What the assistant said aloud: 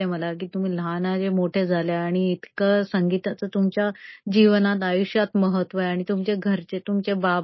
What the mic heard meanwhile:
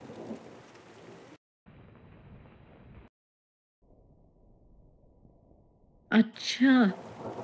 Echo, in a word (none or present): none